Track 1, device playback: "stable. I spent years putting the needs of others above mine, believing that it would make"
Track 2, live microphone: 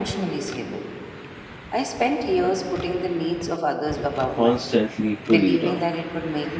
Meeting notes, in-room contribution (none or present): present